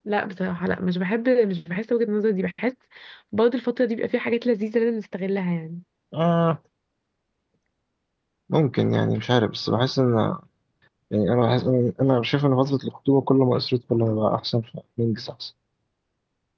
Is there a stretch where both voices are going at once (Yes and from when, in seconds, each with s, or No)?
No